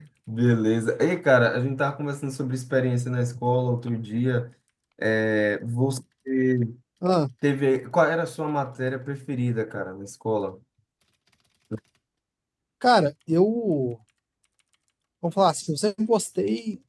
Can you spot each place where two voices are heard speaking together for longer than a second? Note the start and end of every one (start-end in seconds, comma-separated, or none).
none